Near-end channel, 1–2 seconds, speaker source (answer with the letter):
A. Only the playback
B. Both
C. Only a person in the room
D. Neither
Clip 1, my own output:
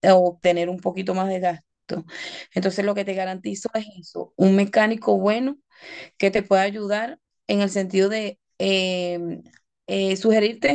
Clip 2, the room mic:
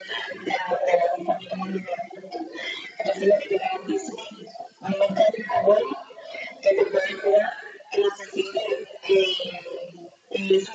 A